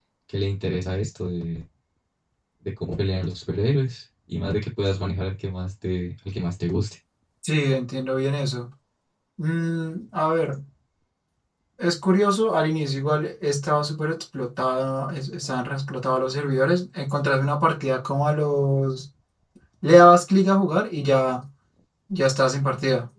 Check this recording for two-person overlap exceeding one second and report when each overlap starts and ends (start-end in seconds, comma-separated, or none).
none